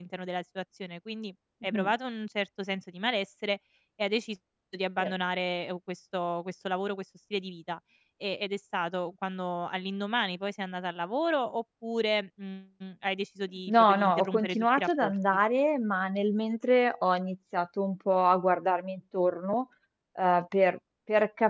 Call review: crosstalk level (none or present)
present